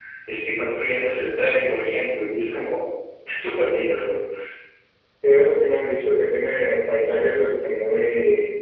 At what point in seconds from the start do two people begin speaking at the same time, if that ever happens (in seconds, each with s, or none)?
none